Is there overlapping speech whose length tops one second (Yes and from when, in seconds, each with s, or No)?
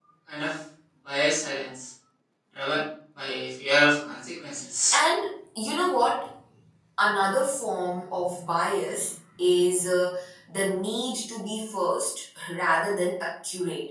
No